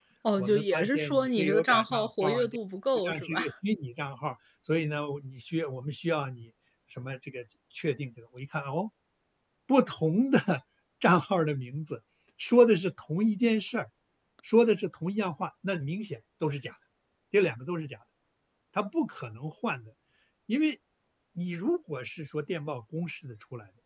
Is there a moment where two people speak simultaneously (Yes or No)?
Yes